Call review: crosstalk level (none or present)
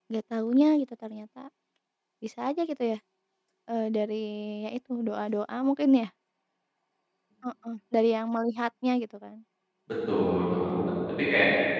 none